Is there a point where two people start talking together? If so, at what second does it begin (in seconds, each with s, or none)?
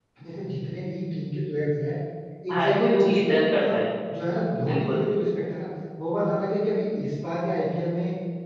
2.5 s